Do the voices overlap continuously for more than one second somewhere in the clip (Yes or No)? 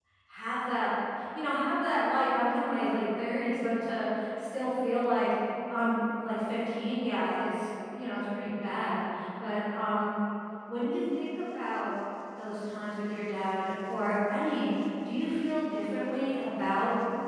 No